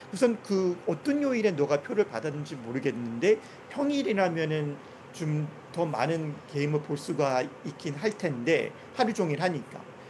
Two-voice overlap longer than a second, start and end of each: none

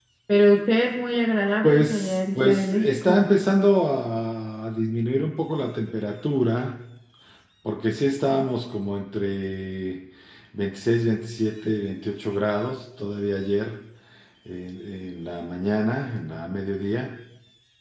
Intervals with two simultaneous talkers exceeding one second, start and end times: 1.6-3.1

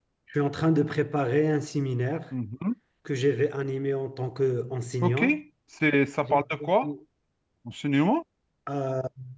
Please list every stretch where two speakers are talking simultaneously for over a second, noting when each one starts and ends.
none

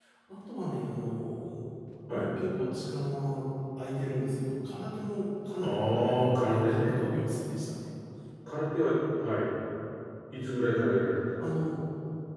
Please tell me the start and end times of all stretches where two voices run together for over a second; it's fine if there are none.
5.6-6.9

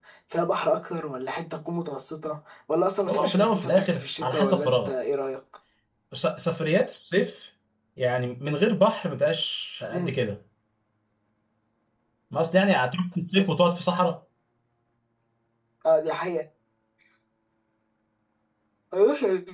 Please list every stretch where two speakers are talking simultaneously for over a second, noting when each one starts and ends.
3.1-4.9

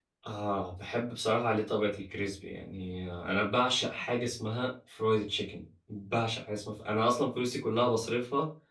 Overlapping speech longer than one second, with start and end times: none

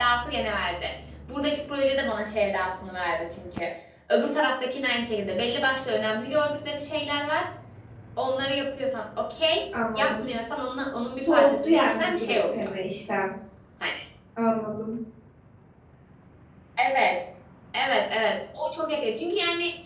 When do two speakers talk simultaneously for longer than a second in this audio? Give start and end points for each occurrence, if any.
11.1-12.6

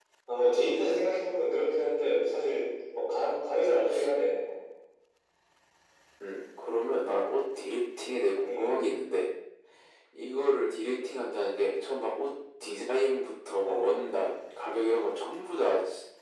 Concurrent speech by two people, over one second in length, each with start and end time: none

